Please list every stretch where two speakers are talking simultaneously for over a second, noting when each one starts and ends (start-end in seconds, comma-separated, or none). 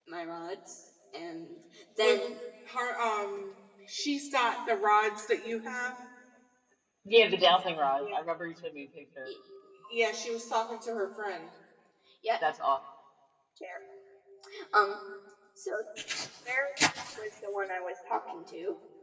none